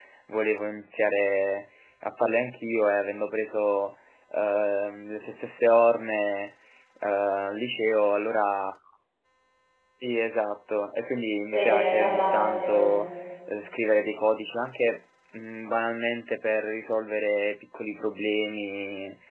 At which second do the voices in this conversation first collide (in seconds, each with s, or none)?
11.5 s